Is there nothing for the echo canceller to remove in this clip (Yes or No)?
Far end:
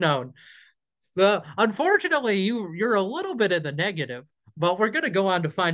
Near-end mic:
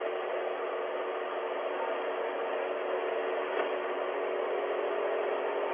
Yes